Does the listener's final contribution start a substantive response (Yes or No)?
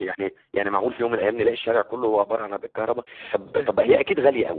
No